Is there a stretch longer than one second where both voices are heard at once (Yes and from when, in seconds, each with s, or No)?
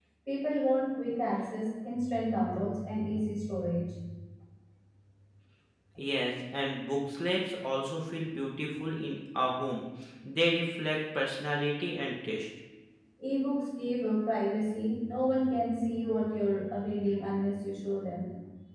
No